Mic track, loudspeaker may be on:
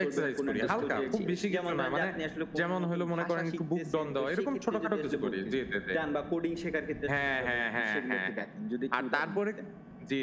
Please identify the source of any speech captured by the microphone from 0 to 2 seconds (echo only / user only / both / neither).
both